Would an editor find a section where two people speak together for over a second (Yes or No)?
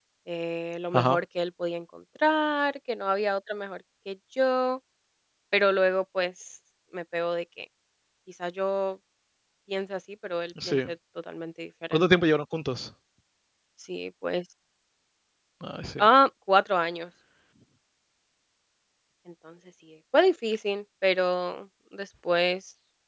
No